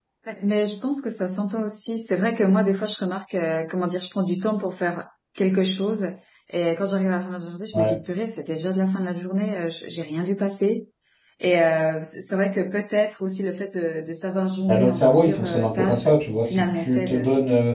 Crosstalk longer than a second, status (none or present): present